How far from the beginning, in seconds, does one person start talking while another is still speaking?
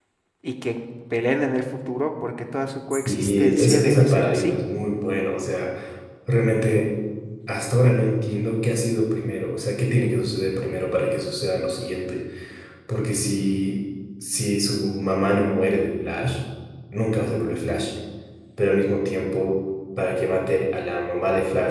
3.1 s

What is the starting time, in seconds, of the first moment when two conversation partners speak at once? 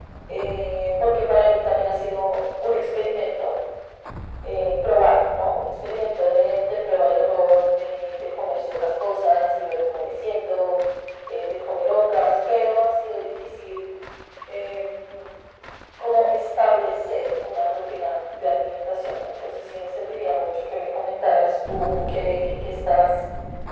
none

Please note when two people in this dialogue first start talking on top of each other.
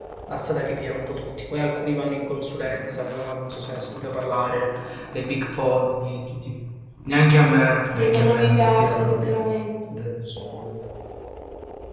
8.0 s

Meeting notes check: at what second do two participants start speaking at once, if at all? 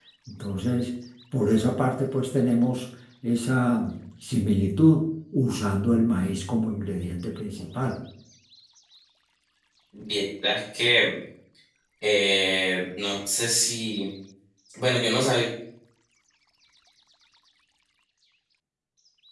none

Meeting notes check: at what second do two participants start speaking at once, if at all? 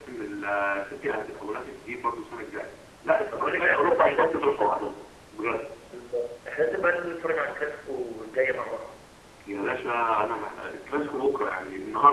3.3 s

